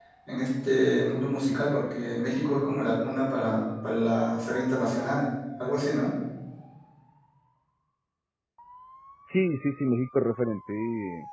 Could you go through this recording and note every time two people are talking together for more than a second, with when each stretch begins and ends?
none

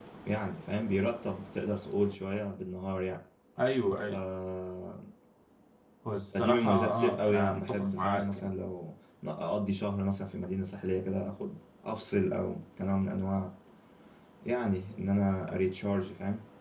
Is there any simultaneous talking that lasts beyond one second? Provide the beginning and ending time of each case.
6.3-8.4

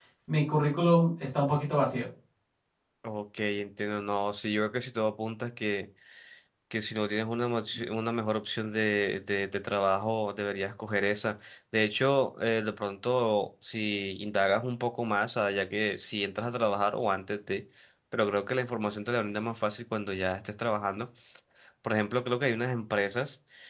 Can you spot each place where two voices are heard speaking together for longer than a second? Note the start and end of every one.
none

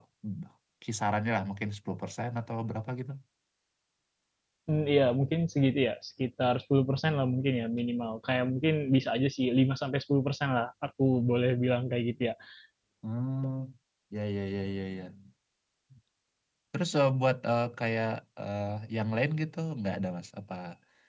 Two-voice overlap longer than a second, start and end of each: none

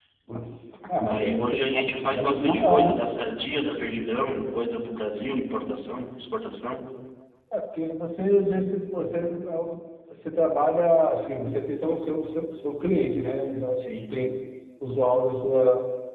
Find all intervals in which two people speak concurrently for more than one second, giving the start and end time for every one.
1.1-2.9

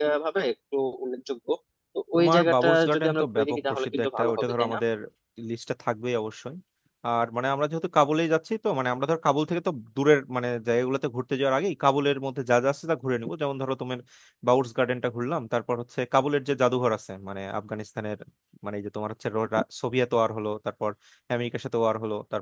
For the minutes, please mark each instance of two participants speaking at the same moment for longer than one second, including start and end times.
2.1-4.8

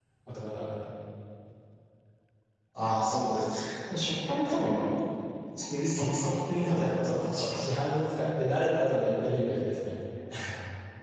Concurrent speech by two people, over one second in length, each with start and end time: 6.0-7.6

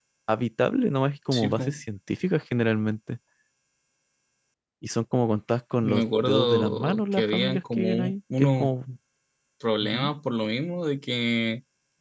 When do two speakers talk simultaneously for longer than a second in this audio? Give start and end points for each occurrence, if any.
5.8-8.7

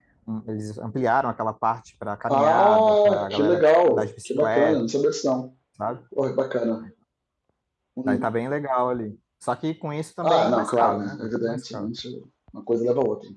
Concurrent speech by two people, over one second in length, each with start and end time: 2.3-4.8, 10.2-11.9

